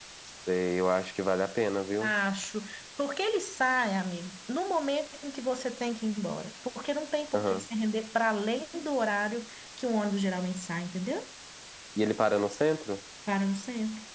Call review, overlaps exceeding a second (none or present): none